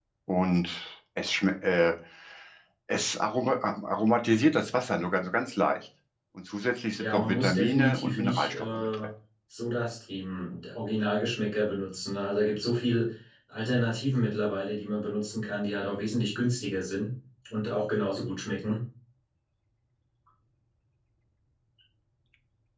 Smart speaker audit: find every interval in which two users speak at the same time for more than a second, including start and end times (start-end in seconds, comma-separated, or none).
7.0-8.9